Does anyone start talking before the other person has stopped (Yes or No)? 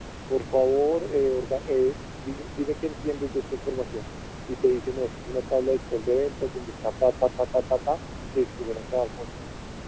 No